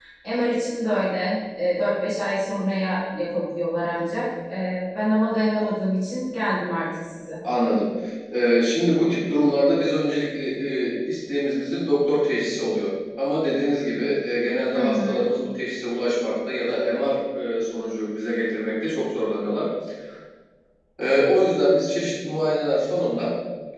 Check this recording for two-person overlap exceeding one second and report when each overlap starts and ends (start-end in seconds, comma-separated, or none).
none